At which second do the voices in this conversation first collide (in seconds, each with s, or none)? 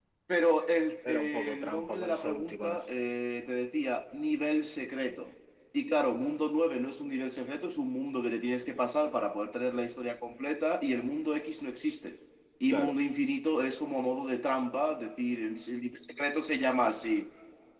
1.1 s